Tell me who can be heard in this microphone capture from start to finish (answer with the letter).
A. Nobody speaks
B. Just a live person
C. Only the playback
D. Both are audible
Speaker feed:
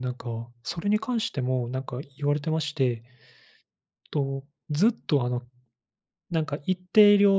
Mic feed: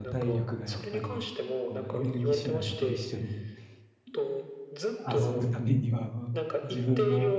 D